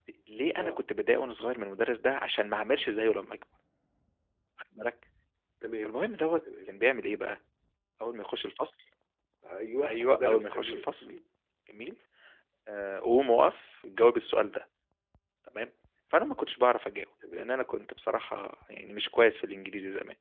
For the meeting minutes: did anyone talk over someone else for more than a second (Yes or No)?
Yes